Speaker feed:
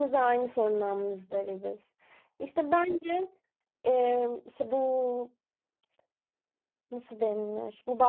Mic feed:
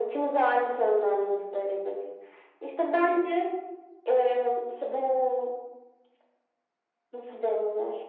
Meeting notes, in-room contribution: none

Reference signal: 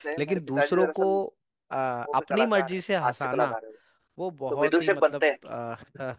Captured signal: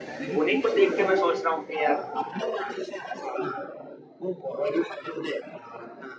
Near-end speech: present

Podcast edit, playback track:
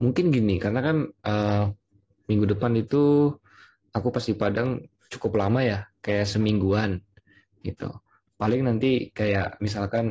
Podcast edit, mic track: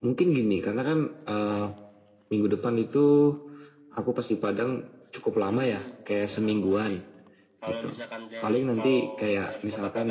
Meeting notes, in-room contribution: present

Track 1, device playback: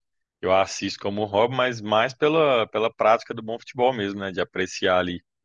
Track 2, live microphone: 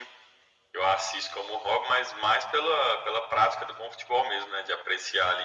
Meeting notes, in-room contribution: none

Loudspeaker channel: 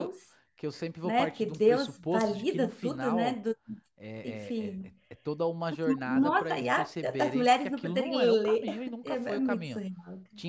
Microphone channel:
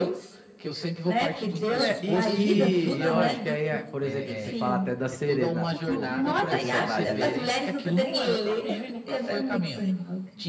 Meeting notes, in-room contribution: present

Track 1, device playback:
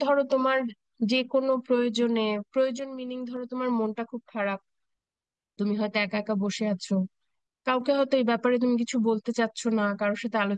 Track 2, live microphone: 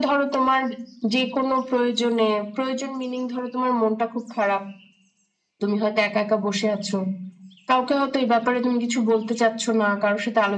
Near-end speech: none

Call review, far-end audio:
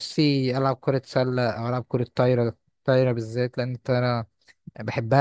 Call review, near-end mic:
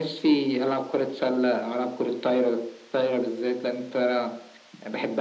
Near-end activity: none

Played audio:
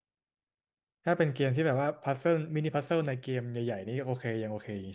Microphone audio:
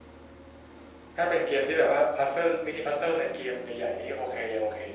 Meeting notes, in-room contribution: none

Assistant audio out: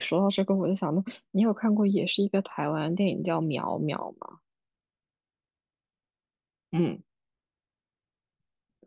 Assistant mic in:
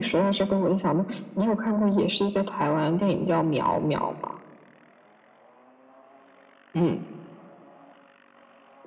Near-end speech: none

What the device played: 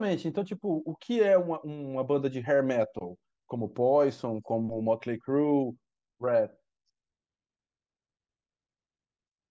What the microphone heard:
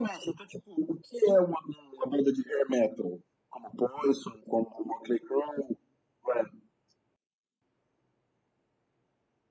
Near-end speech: none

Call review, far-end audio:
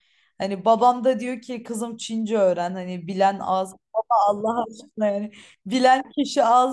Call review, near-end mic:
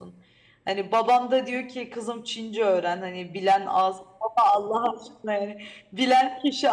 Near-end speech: none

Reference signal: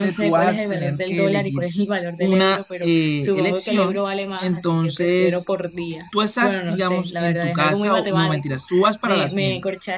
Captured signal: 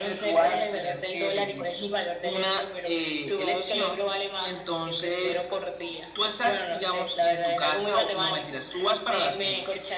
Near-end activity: none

